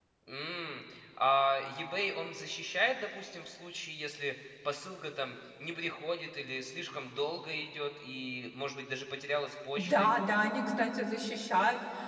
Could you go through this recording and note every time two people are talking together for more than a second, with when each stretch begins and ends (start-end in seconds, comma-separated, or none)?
none